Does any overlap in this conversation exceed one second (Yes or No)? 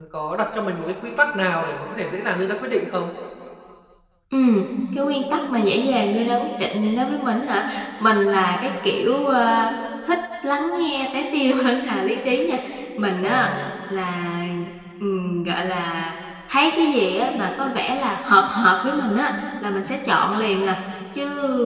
No